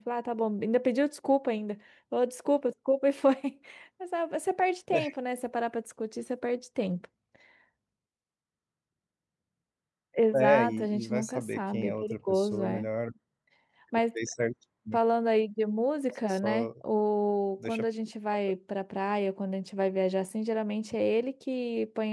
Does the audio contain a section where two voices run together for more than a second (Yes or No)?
Yes